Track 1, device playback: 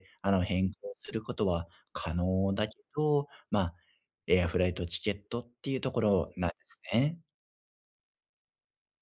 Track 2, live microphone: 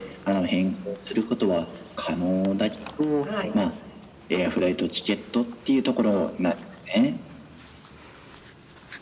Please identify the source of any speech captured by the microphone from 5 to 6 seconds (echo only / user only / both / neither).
echo only